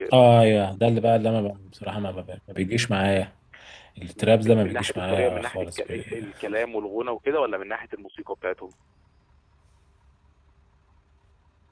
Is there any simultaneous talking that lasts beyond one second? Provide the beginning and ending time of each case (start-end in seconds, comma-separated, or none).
4.2-6.0